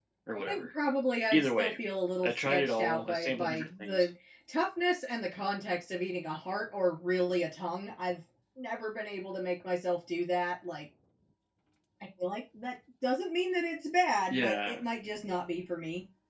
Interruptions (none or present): present